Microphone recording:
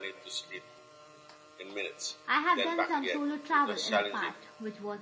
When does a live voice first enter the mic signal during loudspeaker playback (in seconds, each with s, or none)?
2.3 s